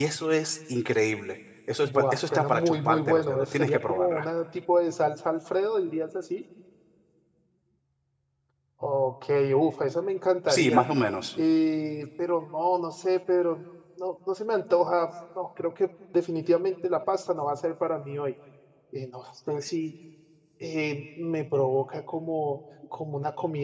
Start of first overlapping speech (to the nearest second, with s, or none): 2 s